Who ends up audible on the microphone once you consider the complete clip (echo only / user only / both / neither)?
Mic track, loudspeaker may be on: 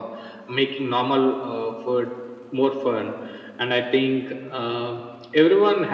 echo only